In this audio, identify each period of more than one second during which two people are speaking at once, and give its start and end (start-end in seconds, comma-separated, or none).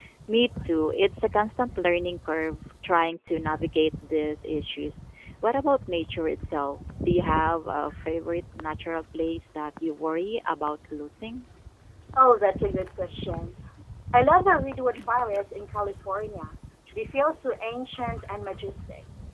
none